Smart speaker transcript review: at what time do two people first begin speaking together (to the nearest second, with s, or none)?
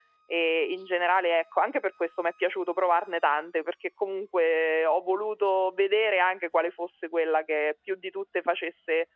none